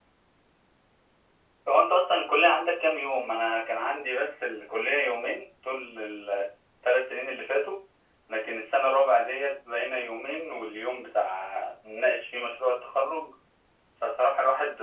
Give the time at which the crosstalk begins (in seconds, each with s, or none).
none